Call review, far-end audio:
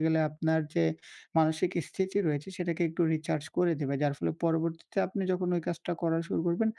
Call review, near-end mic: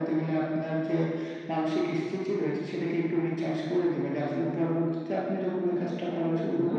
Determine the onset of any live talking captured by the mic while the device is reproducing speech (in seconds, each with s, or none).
5.7 s